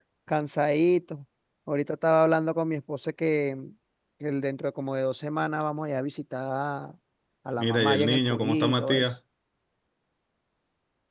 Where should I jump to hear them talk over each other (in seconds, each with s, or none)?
7.6 s